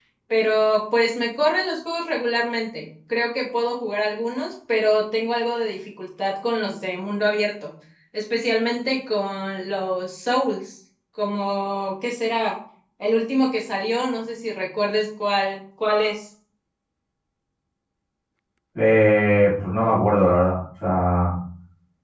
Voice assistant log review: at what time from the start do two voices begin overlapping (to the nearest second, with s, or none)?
none